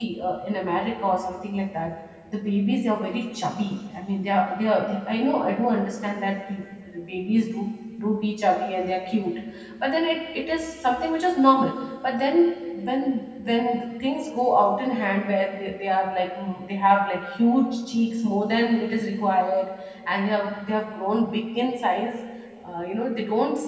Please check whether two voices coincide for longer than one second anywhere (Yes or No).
No